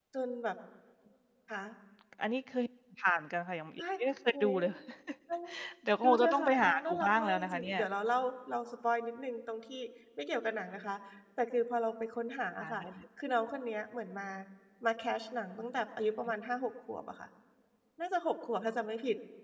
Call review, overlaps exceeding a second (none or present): present